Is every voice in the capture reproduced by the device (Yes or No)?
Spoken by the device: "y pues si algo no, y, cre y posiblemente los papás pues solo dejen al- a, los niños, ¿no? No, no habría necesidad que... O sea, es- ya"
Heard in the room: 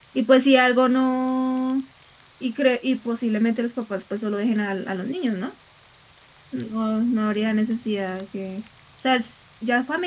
Yes